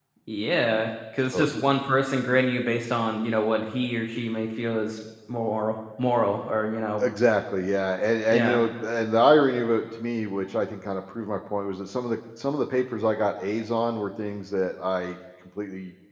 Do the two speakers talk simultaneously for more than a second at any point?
No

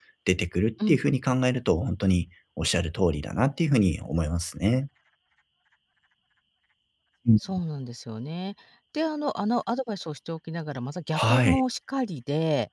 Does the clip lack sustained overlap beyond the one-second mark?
Yes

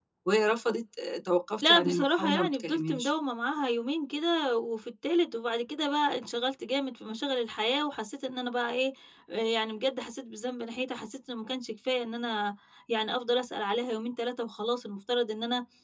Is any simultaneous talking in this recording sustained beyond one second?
Yes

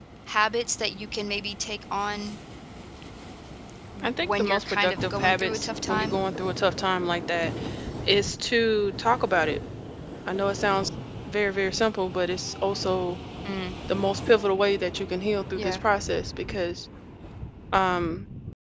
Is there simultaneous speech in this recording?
Yes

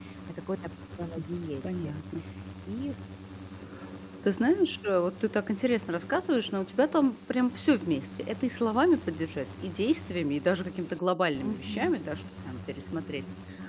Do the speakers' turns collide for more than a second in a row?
No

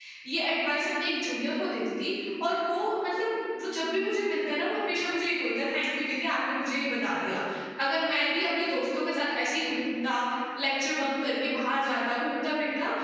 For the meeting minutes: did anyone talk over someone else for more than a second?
No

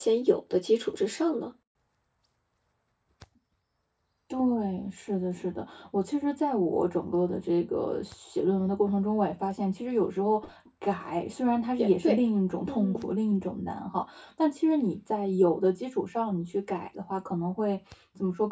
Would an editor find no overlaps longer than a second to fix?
Yes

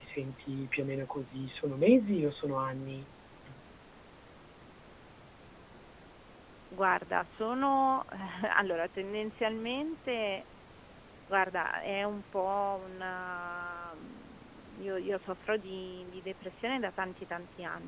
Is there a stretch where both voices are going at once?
No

